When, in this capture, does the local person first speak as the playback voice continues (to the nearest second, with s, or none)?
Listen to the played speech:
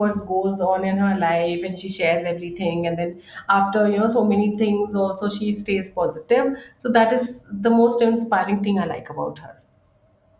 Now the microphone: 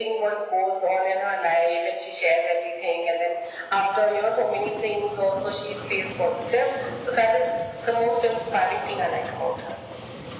none